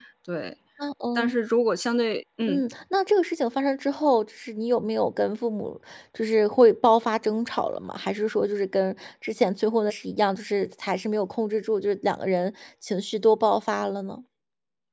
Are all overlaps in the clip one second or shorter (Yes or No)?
Yes